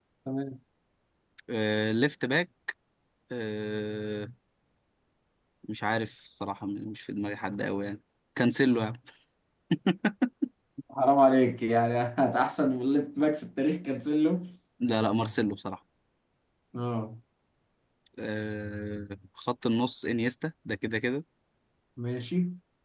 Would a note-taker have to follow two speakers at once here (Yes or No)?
No